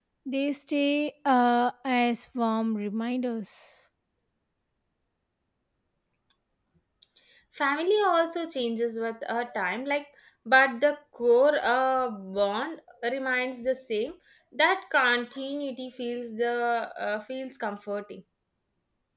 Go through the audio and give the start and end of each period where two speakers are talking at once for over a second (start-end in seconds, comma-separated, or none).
none